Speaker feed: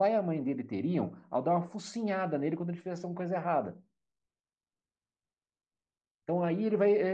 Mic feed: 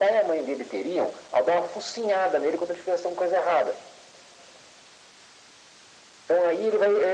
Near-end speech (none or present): none